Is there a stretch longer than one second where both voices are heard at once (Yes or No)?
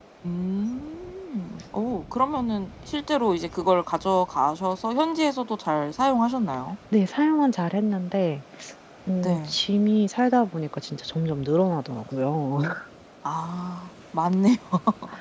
No